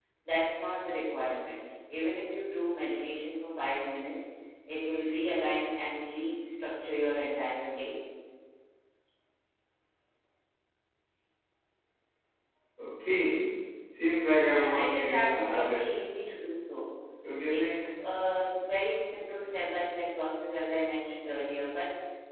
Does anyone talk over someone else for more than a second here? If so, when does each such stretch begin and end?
14.6-15.9

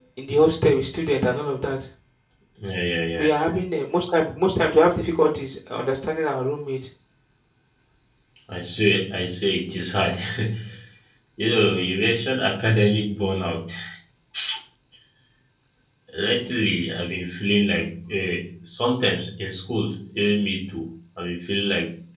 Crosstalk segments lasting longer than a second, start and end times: none

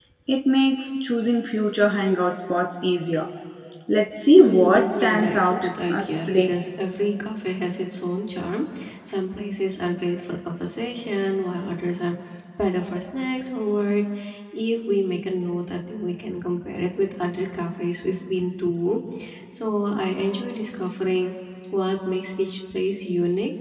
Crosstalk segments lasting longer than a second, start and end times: 4.3-6.5

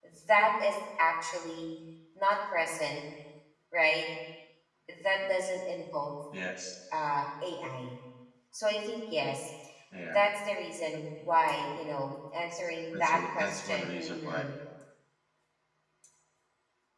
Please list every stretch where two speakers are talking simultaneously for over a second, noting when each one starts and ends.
12.9-14.4

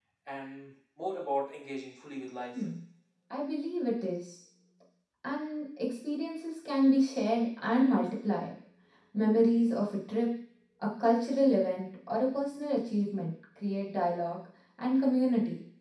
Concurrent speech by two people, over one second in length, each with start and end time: none

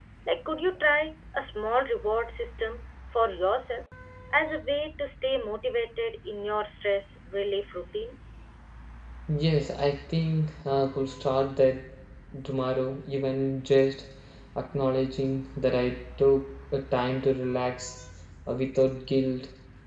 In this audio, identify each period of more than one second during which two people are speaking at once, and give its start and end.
none

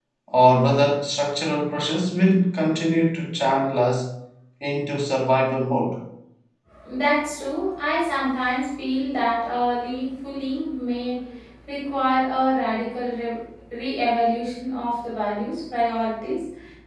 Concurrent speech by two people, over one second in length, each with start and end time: none

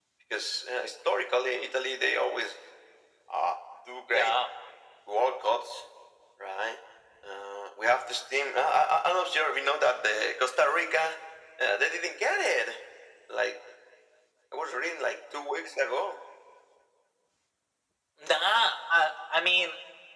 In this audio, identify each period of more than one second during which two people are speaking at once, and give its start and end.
none

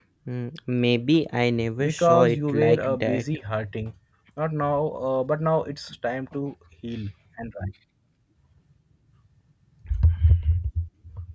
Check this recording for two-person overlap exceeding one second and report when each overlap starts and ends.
1.8-3.2

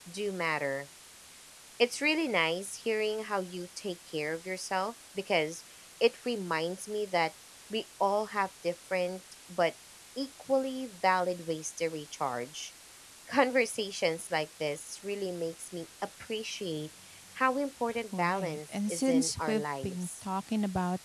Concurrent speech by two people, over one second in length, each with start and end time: 18.2-20.2

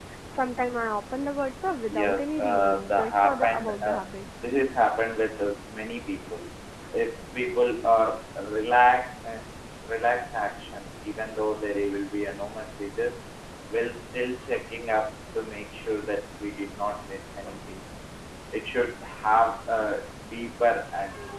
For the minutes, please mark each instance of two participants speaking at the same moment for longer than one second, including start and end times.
1.9-4.0

